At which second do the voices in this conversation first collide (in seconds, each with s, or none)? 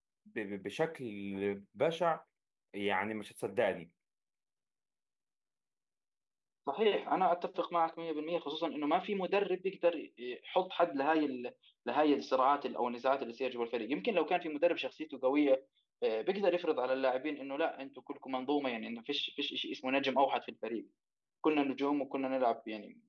none